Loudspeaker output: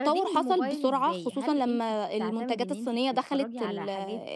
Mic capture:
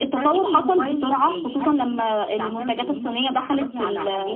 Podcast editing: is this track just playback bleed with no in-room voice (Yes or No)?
Yes